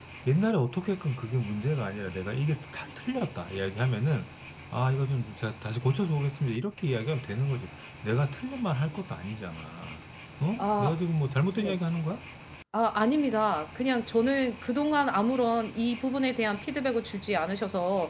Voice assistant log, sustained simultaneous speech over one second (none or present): none